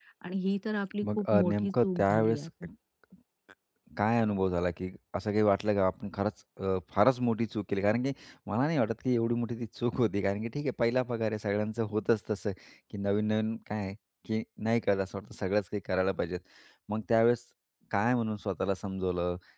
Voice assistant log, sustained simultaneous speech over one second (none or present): present